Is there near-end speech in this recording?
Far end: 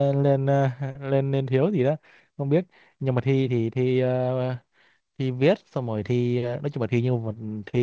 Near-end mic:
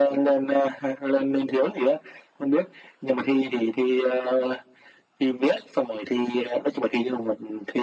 No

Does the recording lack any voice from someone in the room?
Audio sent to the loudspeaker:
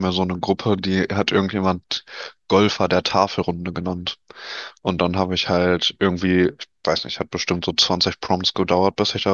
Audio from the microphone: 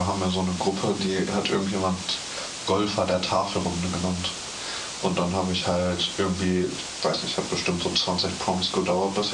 Yes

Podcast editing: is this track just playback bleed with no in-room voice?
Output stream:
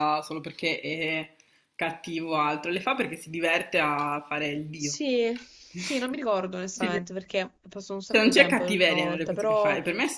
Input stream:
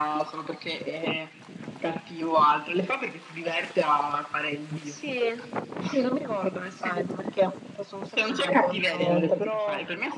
Yes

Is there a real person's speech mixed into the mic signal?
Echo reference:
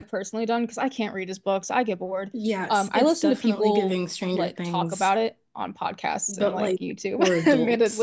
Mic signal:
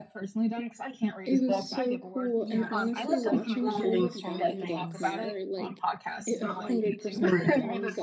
Yes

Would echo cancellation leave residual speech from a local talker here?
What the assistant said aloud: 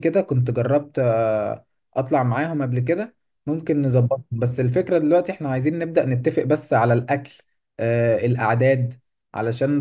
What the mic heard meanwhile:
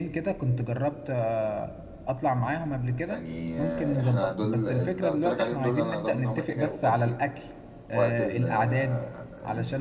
Yes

